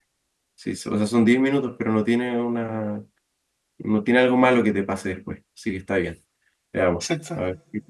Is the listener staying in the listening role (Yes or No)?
Yes